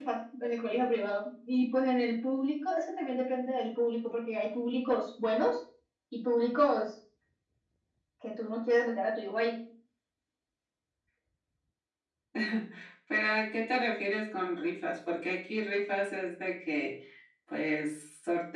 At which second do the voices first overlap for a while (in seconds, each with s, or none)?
none